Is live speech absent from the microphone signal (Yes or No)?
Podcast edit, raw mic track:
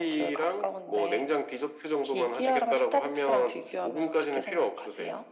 Yes